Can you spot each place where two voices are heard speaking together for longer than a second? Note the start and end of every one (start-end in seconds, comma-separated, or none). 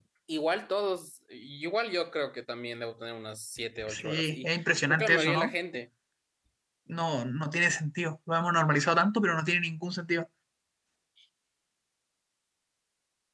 3.9-5.5